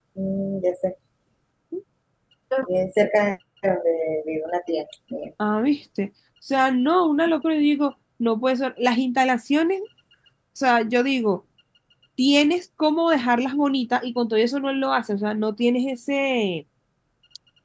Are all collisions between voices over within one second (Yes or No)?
Yes